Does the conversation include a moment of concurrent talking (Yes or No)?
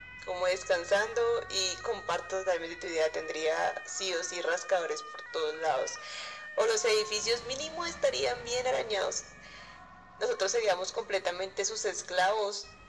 No